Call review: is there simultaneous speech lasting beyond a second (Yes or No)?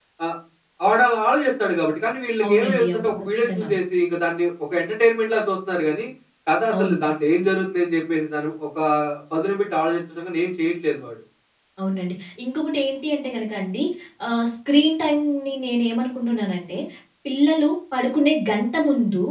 Yes